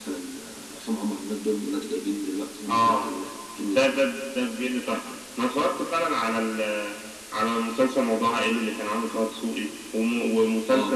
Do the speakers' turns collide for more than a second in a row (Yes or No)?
No